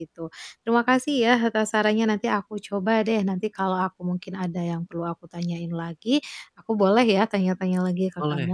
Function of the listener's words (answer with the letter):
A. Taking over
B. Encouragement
A